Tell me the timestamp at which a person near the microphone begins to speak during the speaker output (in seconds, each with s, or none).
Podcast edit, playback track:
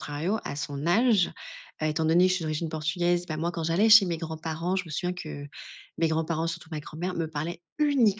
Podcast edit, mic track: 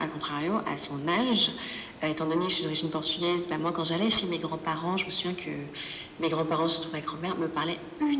none